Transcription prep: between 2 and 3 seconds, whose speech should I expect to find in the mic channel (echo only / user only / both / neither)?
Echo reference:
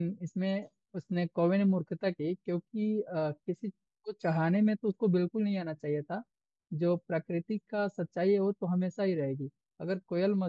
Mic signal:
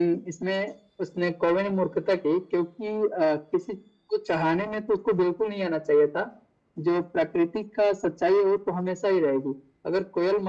echo only